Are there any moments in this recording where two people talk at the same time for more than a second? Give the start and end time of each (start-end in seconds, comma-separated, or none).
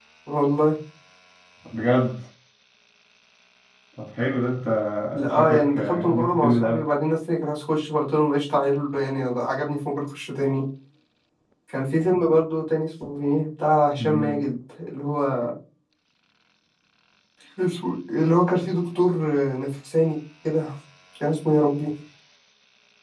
5.3-6.8